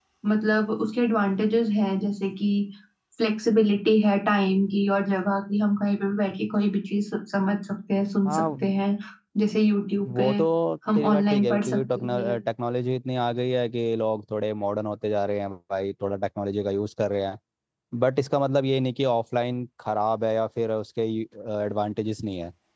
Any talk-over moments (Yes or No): Yes